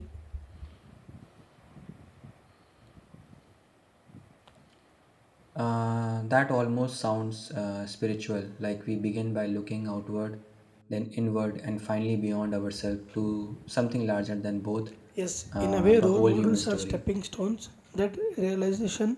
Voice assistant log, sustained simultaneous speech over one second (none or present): present